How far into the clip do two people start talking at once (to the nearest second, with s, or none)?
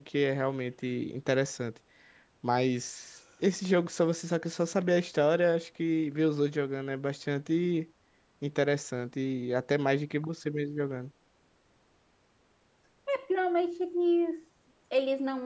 none